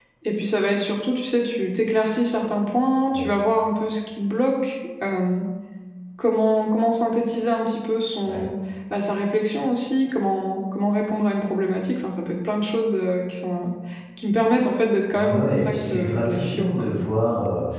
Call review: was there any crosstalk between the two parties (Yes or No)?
Yes